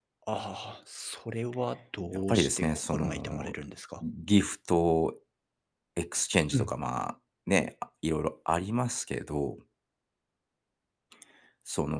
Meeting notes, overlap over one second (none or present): present